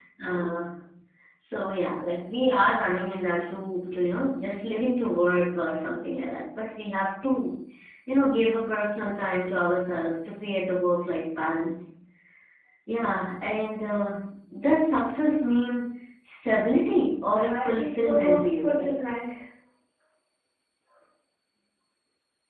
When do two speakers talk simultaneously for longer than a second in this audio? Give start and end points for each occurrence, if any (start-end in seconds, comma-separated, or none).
17.4-18.9